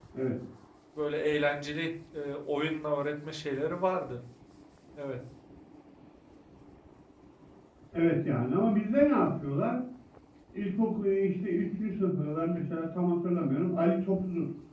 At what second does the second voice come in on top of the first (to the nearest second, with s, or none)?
none